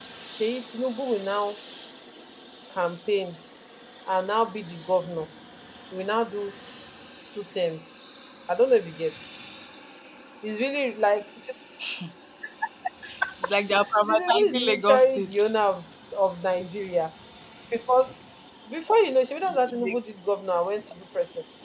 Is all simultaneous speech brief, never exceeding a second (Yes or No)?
No